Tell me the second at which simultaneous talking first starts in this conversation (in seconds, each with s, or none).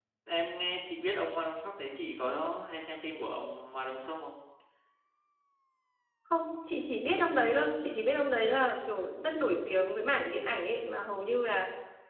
none